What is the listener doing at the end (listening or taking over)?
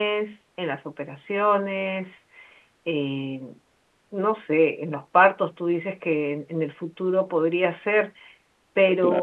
listening